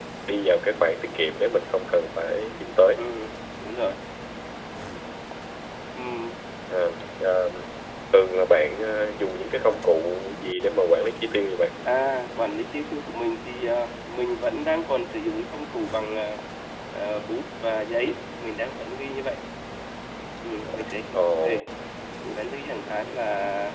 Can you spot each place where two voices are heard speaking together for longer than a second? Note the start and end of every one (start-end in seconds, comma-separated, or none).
none